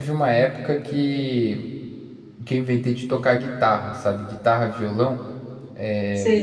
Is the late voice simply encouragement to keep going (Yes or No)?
Yes